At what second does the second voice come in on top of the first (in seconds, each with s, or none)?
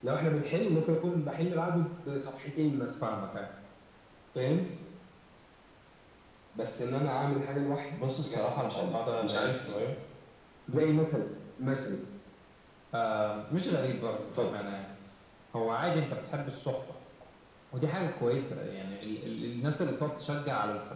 8.2 s